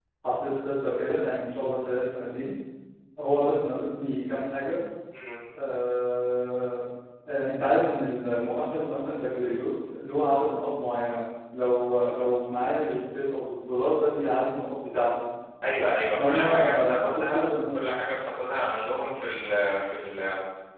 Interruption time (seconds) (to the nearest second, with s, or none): 16 s